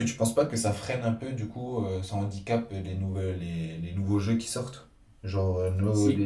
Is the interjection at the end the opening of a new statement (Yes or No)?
No